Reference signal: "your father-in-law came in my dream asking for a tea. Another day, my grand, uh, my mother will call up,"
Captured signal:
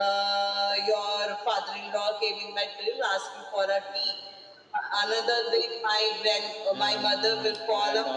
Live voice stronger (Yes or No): No